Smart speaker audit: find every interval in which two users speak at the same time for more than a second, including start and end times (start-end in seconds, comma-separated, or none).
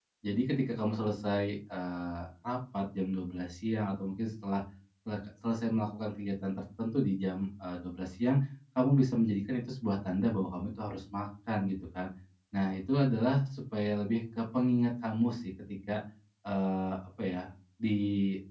none